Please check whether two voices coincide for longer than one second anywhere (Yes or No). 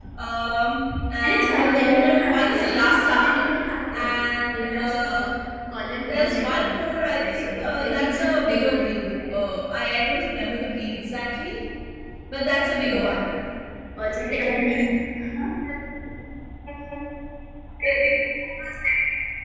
Yes